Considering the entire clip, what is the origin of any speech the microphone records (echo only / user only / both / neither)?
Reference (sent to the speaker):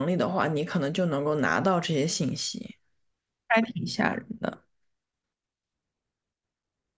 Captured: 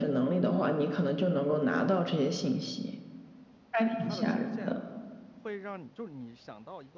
both